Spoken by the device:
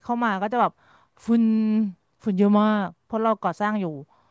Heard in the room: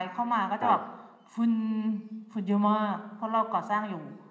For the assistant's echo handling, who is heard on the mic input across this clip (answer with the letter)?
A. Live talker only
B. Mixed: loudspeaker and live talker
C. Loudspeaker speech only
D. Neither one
B